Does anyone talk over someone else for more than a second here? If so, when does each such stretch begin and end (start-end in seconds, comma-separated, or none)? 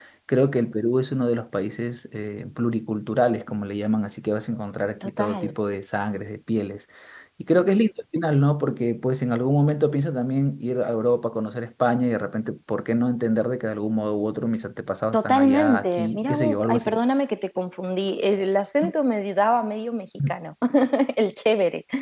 15.1-16.9